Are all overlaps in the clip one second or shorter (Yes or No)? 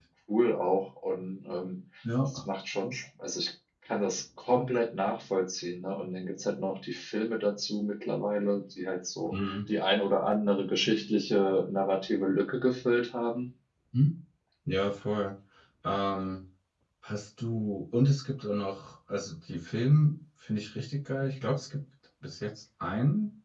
Yes